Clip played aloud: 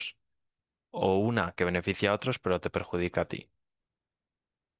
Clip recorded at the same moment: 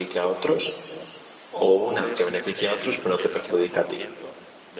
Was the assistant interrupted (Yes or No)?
Yes